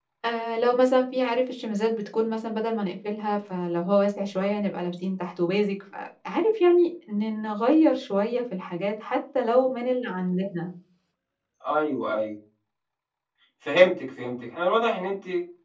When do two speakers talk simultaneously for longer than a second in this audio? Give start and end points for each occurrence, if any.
none

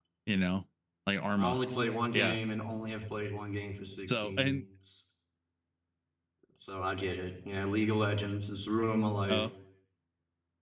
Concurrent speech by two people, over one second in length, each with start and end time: none

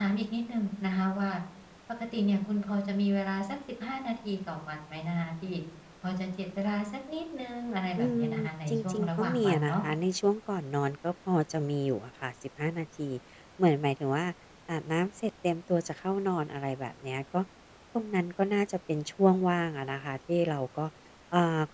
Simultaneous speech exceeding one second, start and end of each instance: 8.0-9.8

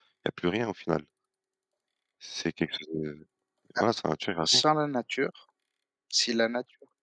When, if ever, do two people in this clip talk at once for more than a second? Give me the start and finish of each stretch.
none

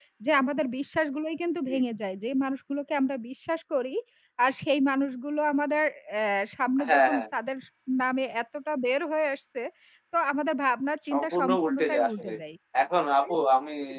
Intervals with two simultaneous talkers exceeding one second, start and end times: 11.1-12.3

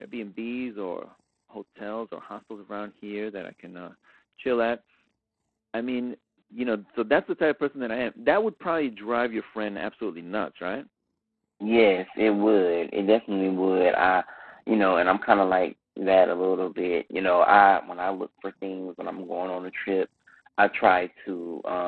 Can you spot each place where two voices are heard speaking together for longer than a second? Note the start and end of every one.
none

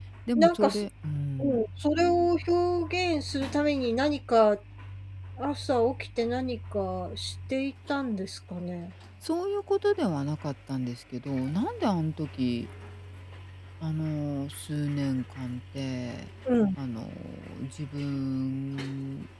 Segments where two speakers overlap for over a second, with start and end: none

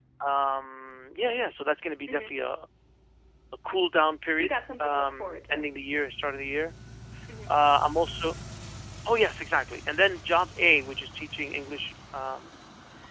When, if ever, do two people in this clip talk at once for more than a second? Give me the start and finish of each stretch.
4.4-5.7

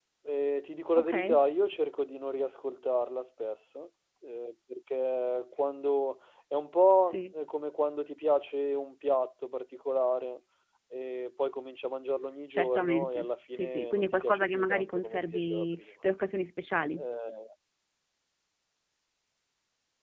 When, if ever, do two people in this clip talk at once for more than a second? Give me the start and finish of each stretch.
12.5-15.8

